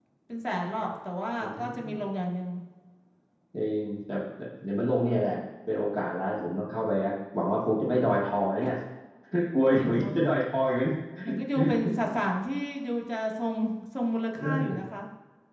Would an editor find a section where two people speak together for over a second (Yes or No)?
No